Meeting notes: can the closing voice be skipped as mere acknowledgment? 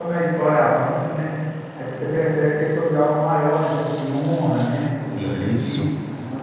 Yes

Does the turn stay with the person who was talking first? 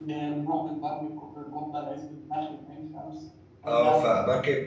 No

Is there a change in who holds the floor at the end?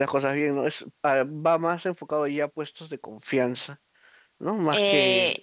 Yes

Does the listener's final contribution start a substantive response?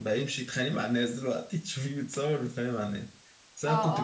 Yes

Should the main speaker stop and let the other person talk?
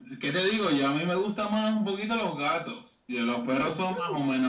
No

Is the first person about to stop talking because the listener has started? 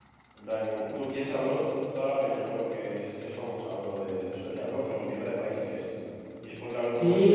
Yes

